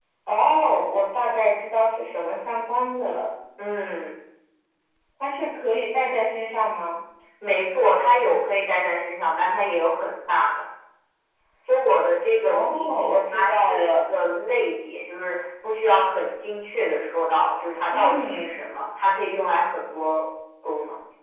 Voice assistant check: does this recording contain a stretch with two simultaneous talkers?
Yes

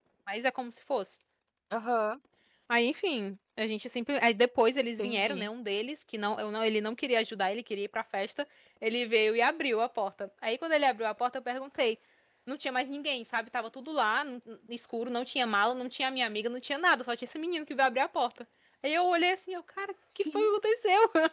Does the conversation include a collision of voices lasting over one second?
No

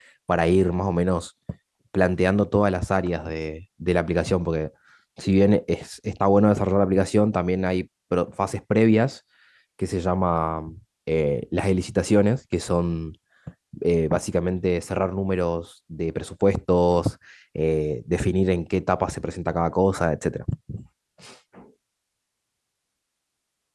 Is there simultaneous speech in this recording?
No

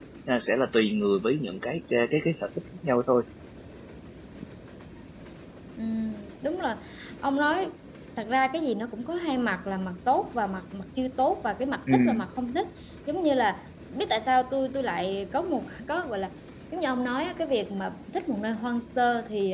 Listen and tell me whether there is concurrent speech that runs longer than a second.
No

